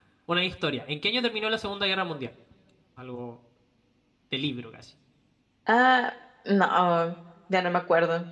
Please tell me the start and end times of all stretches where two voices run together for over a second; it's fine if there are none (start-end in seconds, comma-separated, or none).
none